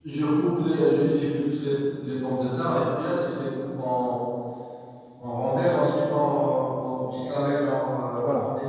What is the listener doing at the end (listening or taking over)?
taking over